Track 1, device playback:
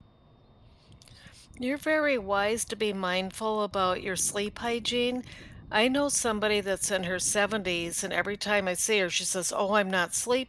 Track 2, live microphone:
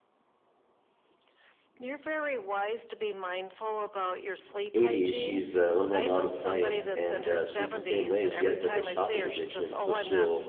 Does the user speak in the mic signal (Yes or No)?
Yes